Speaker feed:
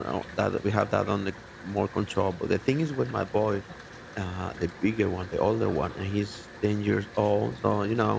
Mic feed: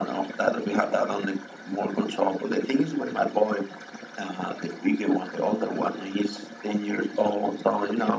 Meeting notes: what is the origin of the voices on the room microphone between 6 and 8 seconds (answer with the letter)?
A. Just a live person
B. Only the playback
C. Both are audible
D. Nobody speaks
B